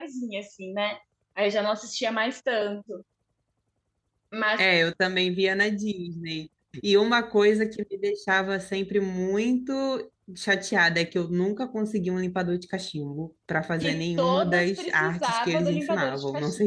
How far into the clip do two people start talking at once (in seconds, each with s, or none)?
13.8 s